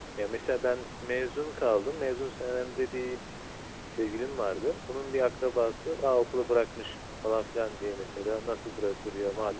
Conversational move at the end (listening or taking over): listening